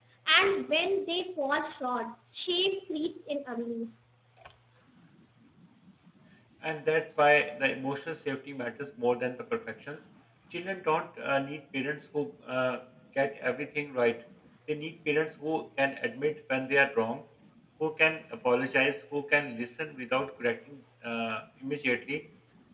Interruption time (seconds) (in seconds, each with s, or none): none